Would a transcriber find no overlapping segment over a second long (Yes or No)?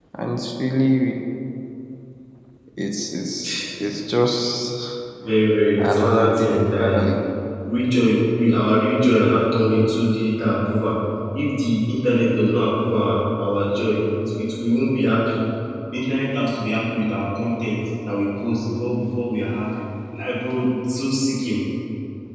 No